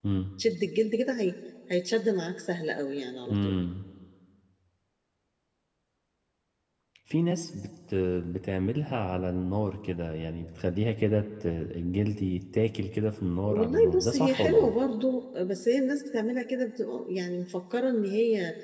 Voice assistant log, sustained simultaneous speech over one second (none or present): present